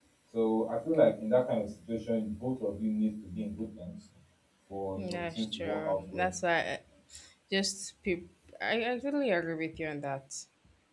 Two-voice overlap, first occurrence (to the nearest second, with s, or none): 5 s